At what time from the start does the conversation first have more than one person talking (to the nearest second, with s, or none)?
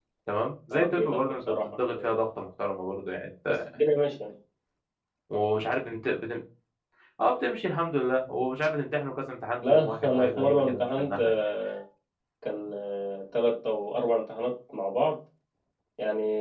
1 s